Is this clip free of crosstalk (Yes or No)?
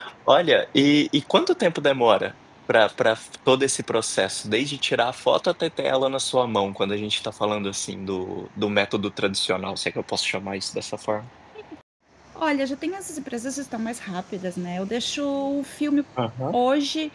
Yes